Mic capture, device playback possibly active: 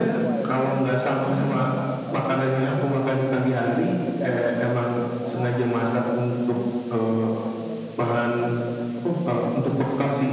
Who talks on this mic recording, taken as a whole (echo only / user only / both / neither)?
both